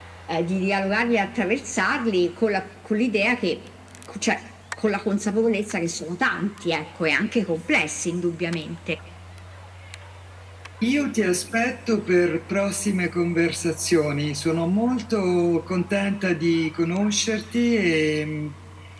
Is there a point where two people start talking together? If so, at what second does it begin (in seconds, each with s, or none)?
none